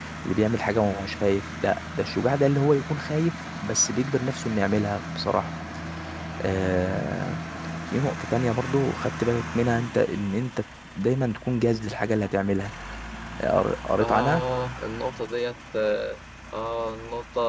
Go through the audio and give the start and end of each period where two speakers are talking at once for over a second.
none

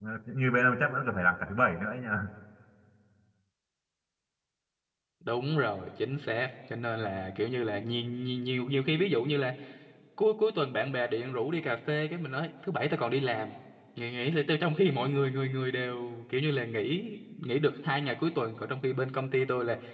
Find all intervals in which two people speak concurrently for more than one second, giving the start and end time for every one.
none

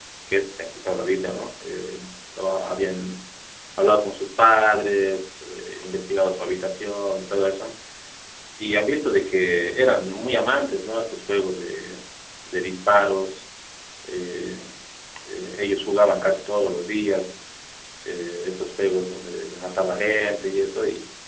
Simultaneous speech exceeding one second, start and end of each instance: none

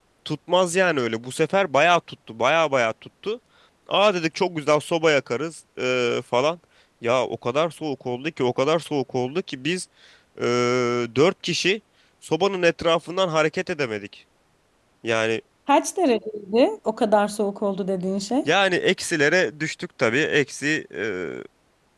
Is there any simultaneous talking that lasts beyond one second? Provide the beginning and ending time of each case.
none

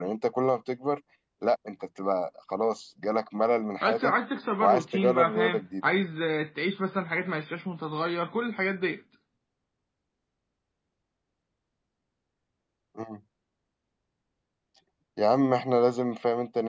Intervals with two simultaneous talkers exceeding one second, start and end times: 4.6-5.9

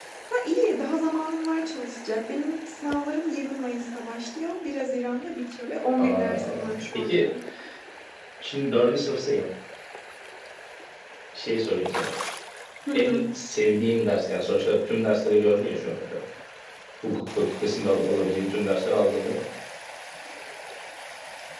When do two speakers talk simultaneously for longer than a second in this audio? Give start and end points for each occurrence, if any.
6.0-7.2

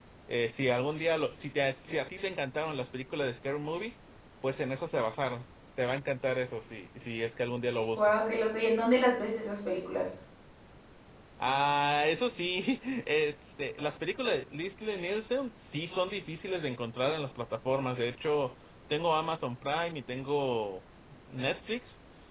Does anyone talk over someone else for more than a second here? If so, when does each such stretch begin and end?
none

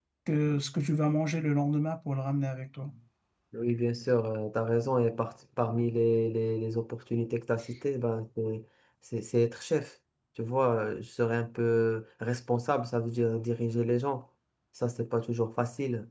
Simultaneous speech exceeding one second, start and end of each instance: none

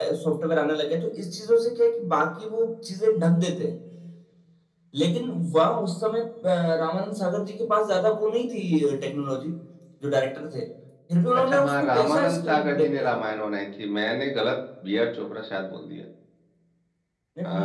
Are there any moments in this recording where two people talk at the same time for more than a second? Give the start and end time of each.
11.5-13.1

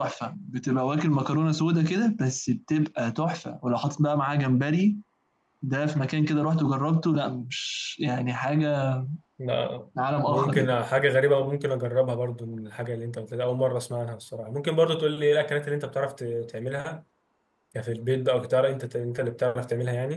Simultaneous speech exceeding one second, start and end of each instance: none

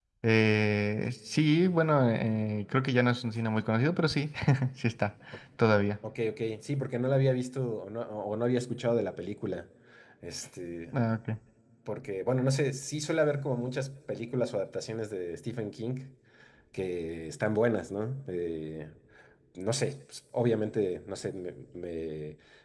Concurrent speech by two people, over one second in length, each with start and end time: none

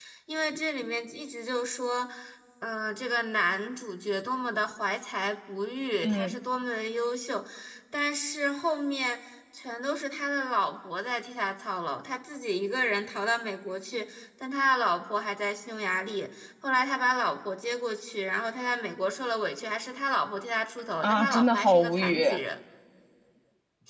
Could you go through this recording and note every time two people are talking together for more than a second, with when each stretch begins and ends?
21.0-22.2

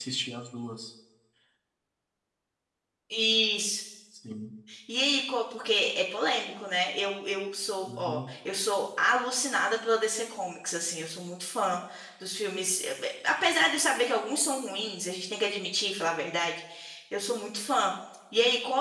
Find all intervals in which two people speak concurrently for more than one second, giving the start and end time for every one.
none

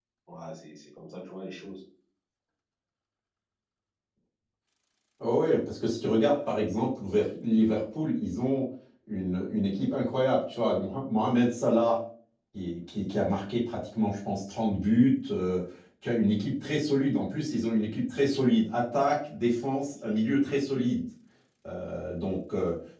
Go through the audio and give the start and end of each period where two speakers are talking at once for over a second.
none

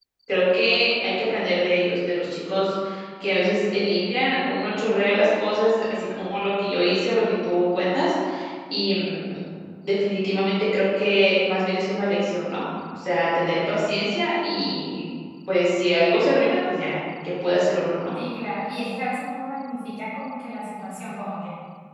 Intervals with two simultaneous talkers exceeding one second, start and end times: none

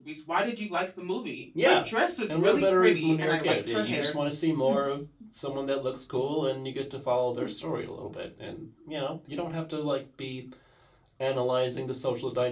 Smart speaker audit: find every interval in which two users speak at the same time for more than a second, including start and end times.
2.3-4.1

